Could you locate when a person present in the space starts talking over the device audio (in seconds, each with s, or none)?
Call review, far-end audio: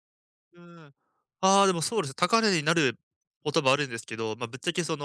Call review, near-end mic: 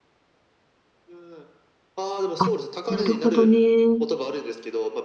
2.4 s